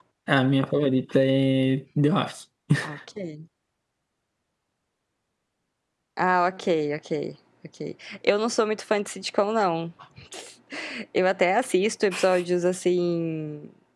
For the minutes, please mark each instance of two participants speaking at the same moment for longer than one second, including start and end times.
none

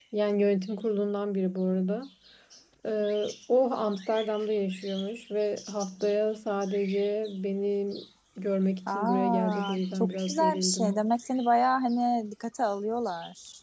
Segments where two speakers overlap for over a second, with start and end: 8.9-11.1

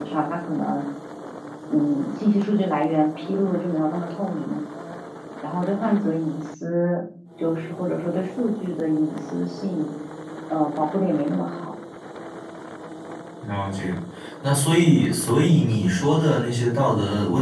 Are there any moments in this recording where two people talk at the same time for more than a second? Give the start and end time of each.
none

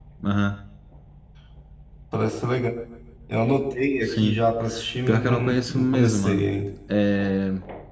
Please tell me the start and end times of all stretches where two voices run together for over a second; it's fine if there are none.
5.1-6.5

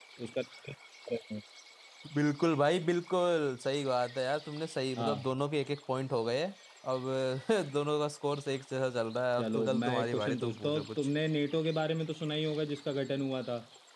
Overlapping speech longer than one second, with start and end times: 9.4-10.9

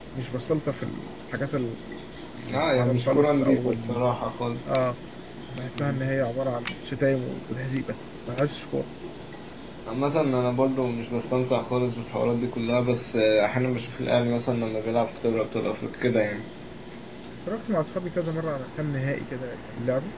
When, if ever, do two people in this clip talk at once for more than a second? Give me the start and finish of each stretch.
2.5-4.0

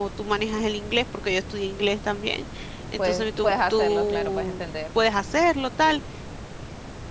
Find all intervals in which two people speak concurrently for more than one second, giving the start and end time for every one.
3.0-4.6

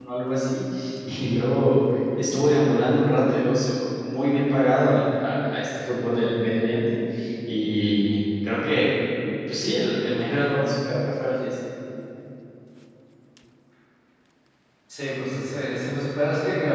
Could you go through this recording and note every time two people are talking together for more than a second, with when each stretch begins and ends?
none

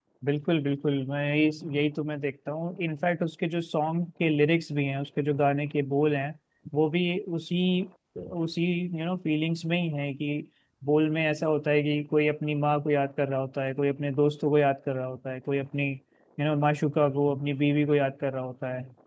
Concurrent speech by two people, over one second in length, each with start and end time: none

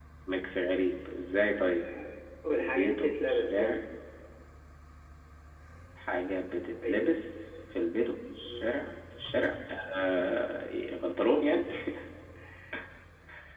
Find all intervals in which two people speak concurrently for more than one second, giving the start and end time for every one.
2.5-3.8

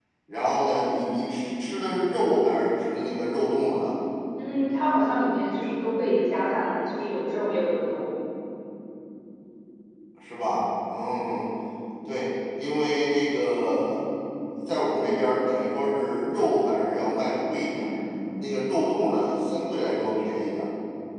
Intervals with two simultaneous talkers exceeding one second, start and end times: none

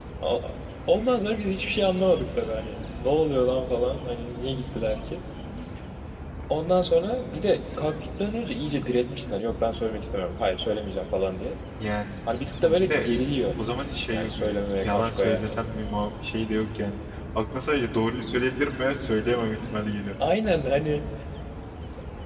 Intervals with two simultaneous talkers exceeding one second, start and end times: 14.1-15.6

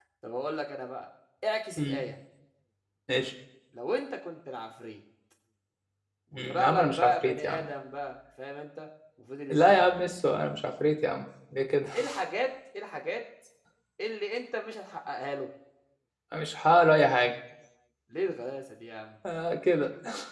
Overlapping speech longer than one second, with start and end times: 6.3-7.7

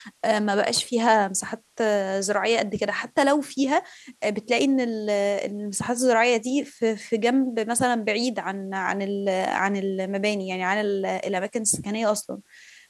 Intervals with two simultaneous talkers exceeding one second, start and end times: none

